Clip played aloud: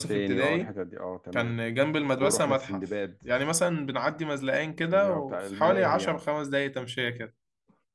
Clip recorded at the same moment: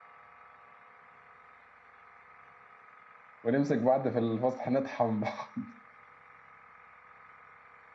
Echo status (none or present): none